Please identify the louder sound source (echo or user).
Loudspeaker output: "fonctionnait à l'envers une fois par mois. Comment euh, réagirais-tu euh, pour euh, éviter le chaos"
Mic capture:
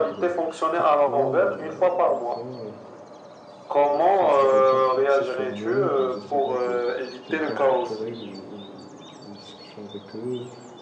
echo